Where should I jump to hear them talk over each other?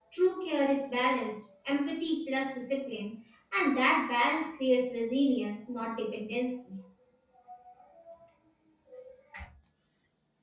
none

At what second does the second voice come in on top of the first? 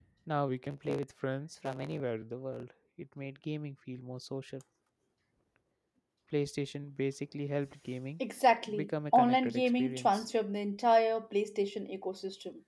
9 s

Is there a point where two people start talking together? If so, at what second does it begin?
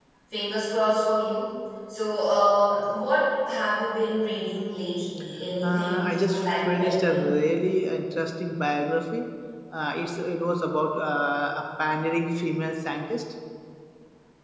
6 s

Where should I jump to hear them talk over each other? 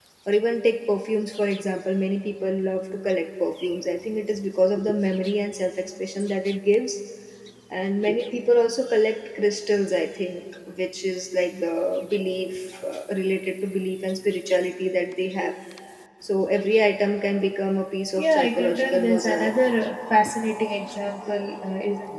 18 s

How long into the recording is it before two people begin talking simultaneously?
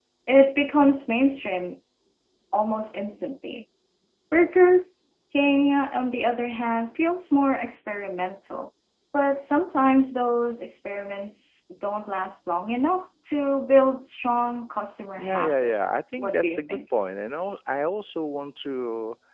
15 s

